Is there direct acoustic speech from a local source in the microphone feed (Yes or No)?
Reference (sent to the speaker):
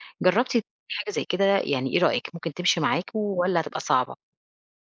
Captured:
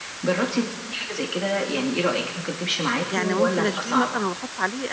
Yes